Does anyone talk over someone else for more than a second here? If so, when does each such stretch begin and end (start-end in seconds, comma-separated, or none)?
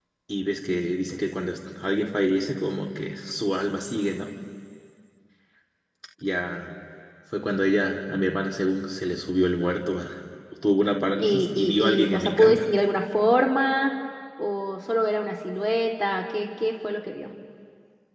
11.2-12.7